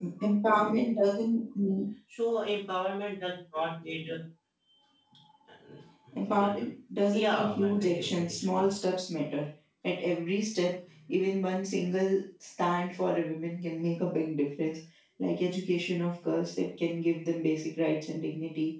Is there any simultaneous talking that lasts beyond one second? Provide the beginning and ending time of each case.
7.1-8.6

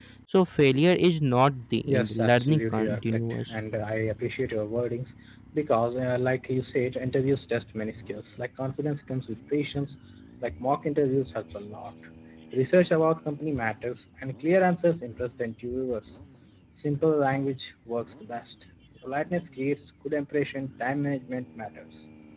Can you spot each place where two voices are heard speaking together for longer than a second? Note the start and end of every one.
1.8-3.5

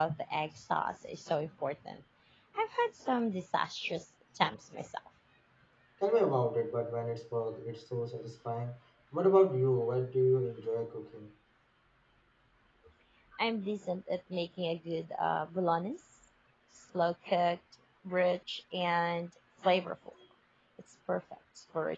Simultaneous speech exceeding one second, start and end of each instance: none

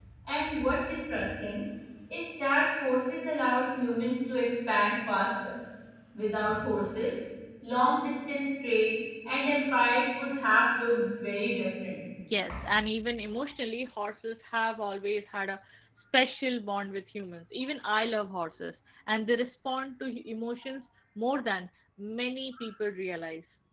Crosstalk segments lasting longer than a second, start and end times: none

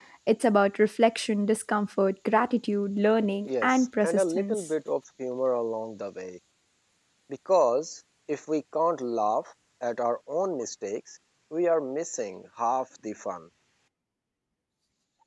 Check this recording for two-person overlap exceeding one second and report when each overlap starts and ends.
3.5-4.7

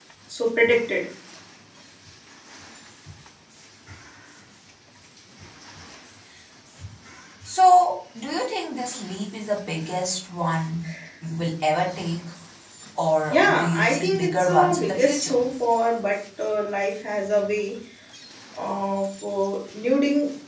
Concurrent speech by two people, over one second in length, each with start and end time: 13.3-15.4

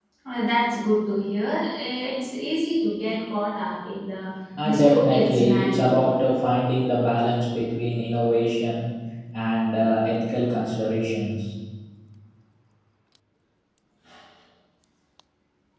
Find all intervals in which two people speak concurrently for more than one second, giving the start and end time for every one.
4.6-5.9

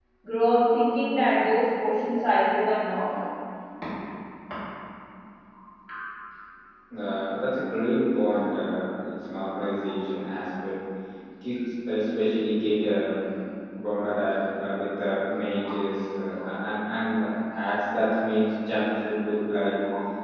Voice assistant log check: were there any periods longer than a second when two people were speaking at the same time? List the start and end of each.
none

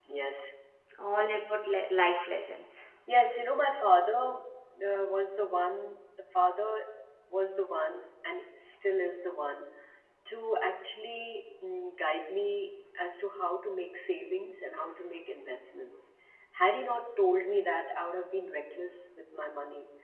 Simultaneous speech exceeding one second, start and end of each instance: none

